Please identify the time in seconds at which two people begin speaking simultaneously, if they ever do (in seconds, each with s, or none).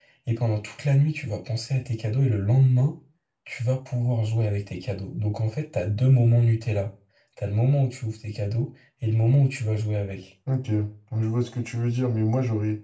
none